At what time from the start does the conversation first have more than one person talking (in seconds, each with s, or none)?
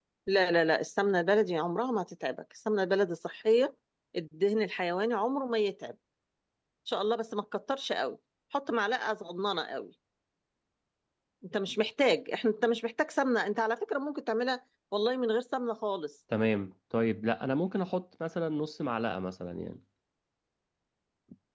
none